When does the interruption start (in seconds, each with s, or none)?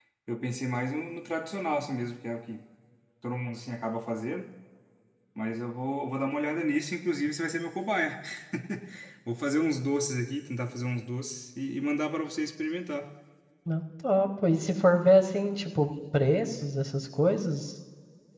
none